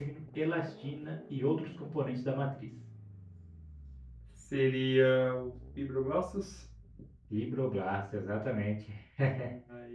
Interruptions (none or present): none